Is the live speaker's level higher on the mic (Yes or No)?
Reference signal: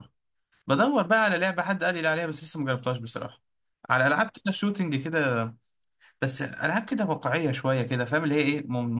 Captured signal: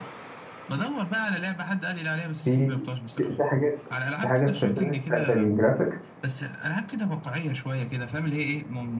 Yes